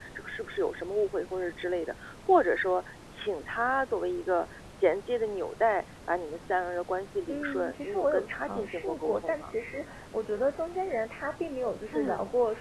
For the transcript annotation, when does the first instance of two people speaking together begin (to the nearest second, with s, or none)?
7 s